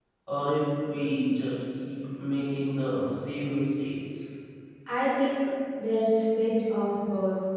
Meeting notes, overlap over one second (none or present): none